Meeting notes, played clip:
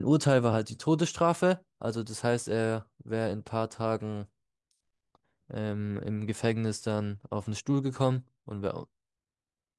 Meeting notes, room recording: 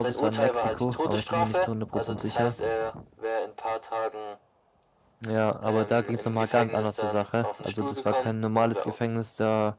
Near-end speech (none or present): present